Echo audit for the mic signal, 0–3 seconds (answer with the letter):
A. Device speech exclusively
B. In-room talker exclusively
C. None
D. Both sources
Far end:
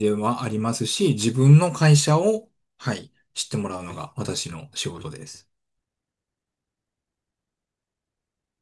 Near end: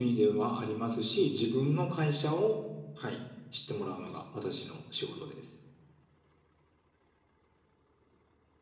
A